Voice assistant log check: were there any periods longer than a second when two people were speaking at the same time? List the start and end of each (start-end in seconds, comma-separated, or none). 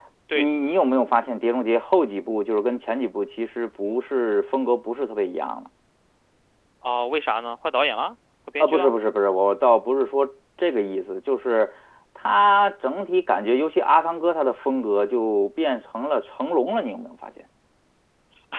none